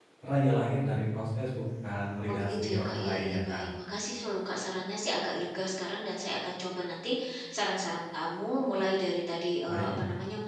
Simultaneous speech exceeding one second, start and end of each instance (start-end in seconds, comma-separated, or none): 2.3-3.6